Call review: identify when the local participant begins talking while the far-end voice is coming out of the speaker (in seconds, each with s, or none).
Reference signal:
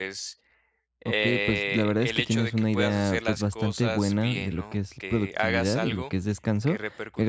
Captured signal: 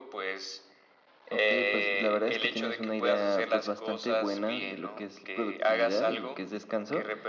none